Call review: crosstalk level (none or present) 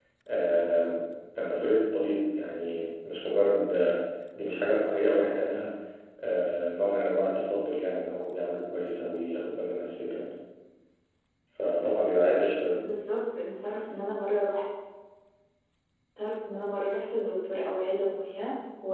none